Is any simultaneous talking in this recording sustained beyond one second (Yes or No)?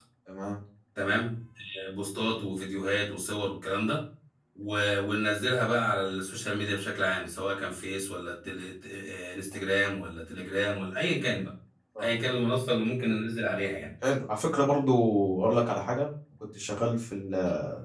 No